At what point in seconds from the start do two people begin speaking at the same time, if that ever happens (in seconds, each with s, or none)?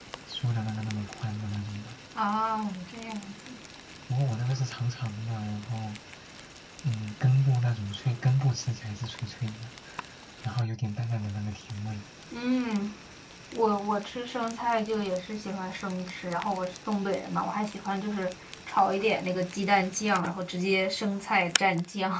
none